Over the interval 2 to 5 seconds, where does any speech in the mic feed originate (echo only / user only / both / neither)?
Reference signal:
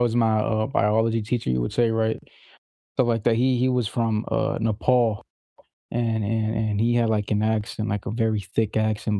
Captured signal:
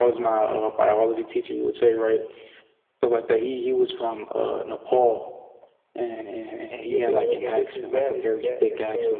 echo only